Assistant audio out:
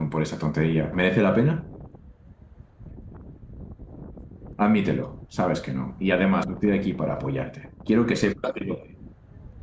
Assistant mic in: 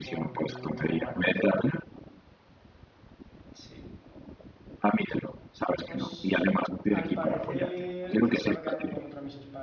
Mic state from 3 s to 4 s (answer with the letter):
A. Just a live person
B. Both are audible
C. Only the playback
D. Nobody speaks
A